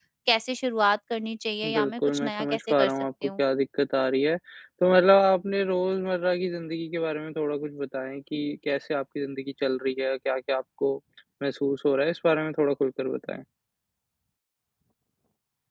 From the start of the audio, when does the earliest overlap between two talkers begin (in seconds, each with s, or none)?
1.6 s